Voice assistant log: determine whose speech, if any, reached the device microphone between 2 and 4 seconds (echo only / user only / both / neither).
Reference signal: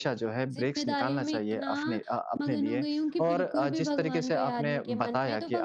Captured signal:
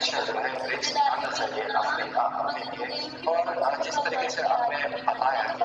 echo only